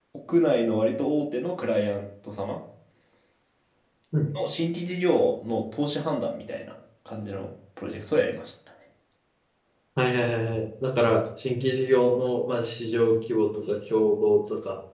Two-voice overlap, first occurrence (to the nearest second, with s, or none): none